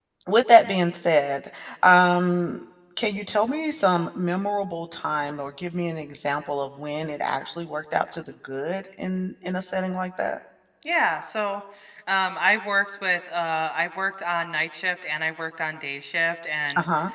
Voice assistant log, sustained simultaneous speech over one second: none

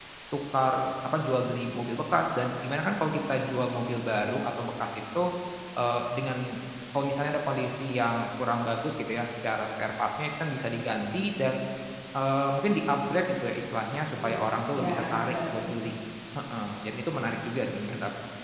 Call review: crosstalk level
present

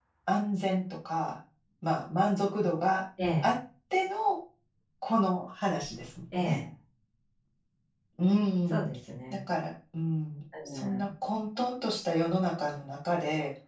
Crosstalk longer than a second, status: none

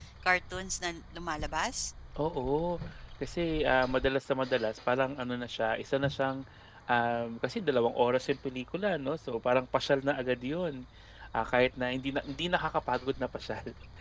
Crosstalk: none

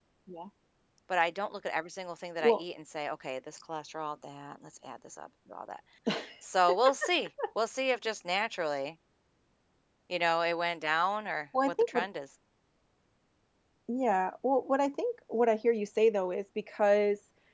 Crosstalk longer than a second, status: none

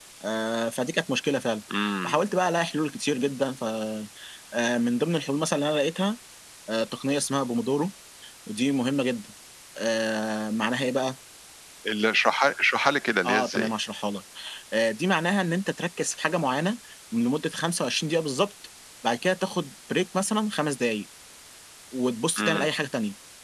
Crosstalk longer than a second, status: none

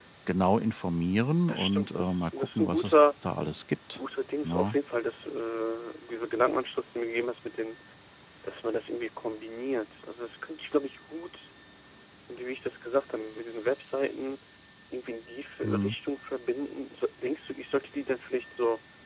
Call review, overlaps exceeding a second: present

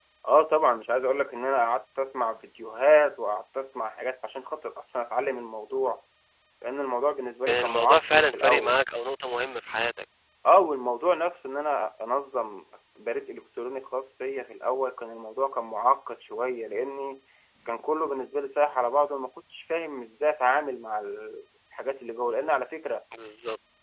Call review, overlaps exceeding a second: present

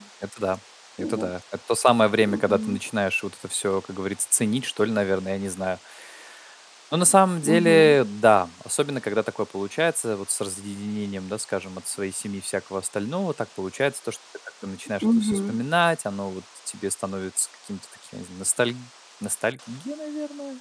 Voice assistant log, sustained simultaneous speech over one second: none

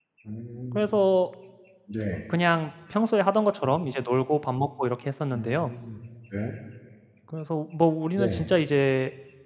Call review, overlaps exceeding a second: none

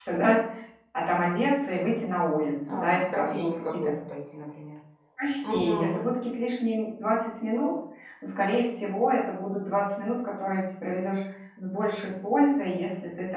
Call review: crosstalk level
present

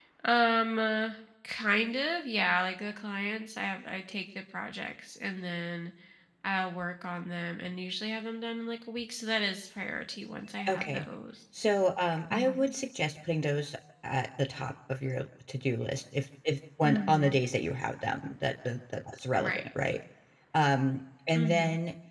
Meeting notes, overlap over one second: none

